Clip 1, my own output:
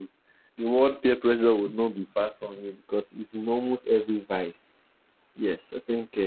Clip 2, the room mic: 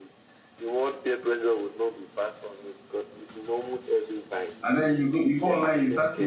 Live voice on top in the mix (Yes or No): Yes